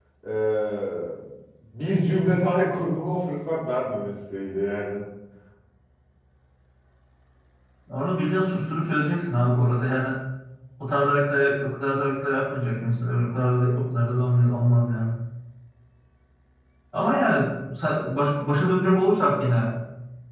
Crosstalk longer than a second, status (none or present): none